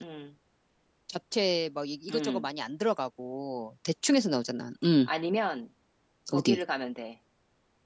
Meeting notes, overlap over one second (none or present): none